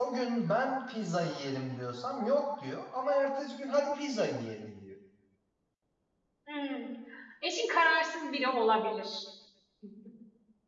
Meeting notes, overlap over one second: none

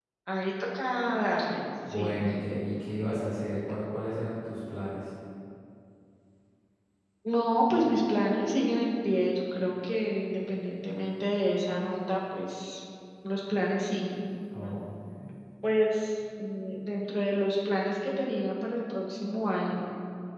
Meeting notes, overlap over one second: none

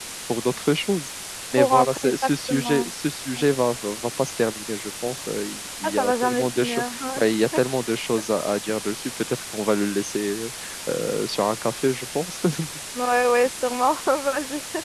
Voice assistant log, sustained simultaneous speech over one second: present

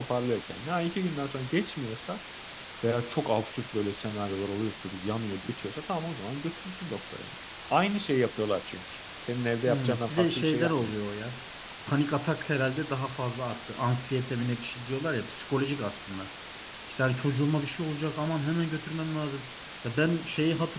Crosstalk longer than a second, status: present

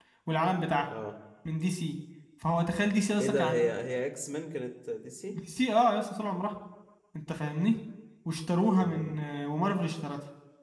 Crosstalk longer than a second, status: none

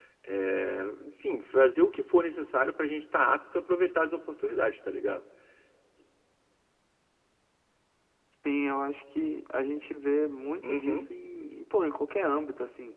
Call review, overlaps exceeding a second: none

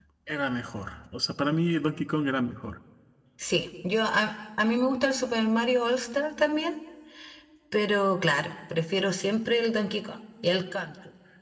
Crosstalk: none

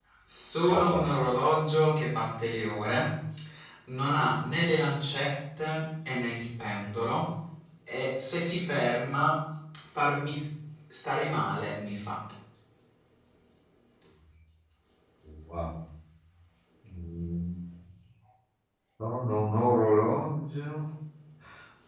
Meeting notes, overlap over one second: none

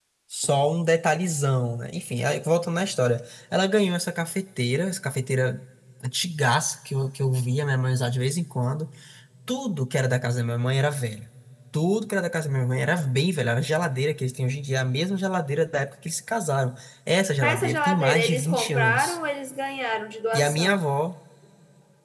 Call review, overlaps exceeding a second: present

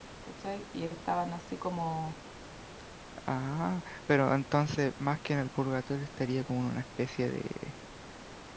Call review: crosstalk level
none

